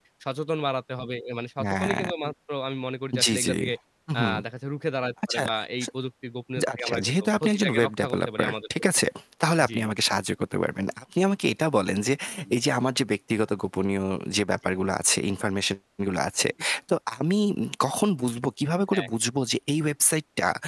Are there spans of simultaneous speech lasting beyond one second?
Yes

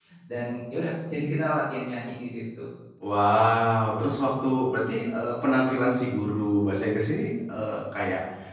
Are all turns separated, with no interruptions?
Yes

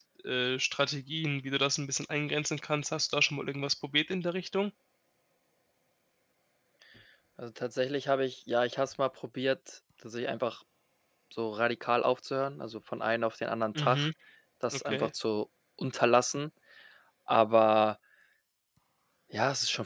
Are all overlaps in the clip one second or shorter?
Yes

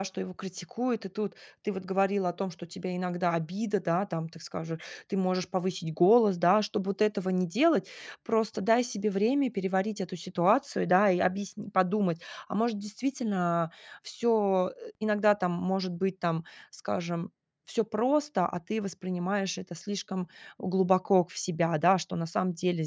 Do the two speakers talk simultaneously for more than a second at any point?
No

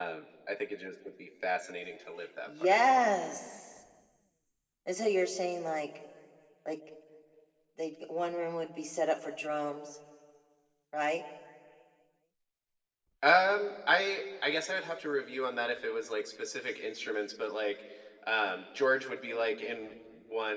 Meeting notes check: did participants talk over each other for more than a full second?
No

